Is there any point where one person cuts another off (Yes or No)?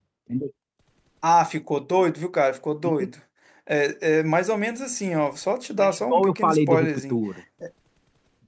Yes